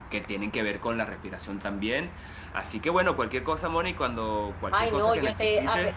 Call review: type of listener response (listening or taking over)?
taking over